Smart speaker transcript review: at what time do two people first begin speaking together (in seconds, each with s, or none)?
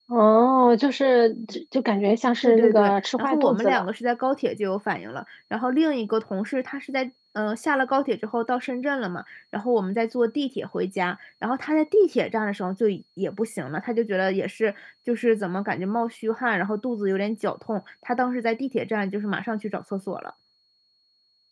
2.4 s